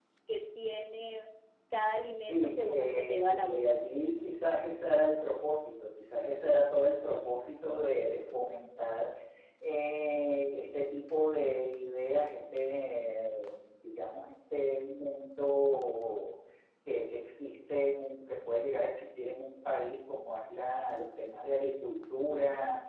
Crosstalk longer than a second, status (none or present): present